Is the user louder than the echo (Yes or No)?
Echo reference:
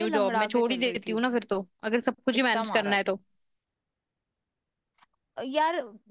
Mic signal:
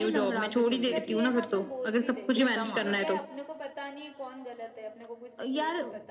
No